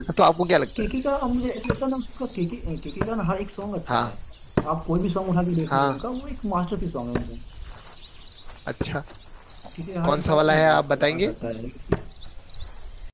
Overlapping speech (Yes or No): Yes